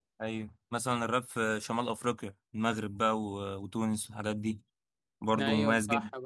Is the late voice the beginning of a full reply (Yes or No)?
Yes